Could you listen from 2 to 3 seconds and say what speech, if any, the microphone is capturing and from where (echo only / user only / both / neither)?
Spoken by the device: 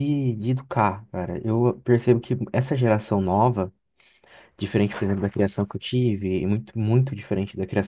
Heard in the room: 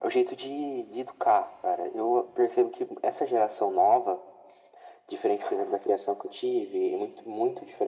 echo only